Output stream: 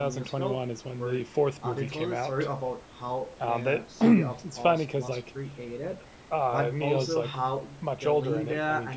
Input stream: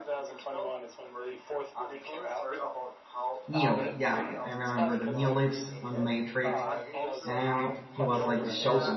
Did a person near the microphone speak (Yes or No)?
Yes